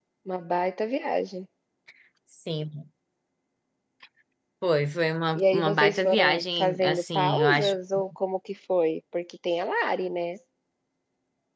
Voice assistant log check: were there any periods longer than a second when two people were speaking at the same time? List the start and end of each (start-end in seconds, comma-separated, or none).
5.3-7.8